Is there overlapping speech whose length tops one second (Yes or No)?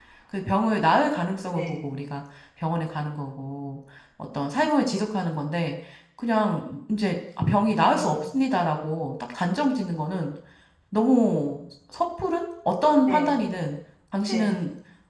No